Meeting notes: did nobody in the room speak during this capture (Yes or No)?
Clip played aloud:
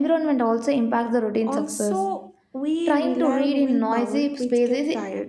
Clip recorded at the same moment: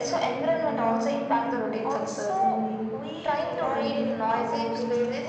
No